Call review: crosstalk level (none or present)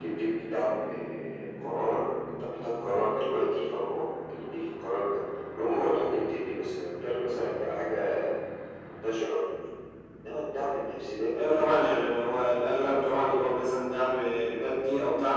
present